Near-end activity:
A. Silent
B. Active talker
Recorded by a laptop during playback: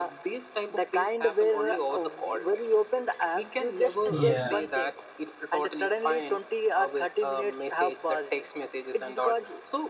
B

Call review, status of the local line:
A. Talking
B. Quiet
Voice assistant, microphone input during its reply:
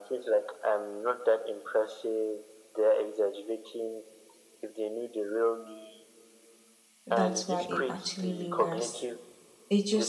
A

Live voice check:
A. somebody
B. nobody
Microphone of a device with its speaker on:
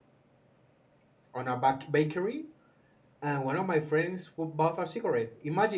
A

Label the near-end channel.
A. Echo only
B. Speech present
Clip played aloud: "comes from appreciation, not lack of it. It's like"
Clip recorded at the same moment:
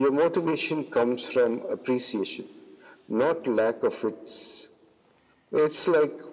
A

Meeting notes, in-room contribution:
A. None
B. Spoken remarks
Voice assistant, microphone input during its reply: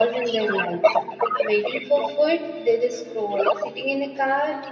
B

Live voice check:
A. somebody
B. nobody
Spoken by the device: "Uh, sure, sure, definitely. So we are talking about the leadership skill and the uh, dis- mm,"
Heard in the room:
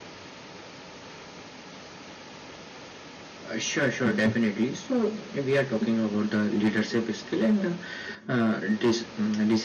B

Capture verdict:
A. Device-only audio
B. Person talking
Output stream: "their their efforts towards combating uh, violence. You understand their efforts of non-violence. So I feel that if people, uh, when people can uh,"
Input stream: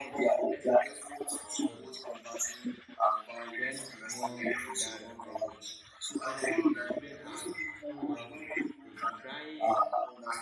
B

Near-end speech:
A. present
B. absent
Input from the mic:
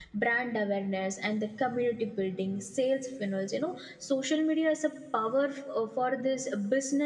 A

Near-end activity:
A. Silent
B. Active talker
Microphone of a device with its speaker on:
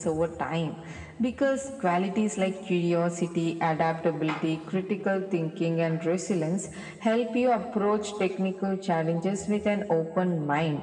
A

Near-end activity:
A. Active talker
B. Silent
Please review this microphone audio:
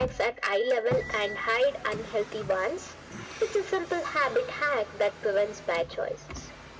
B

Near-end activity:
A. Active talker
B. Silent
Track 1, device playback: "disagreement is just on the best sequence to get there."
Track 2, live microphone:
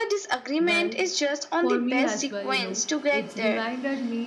A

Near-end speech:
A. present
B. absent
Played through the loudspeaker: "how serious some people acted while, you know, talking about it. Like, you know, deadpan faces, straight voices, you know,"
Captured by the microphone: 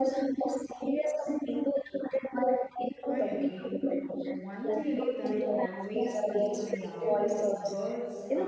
A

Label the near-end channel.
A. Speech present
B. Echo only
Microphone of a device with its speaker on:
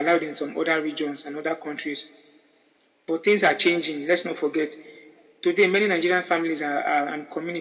B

